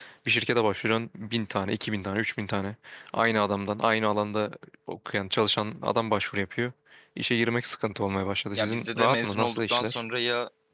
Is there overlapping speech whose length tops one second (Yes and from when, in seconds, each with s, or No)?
Yes, from 8.6 s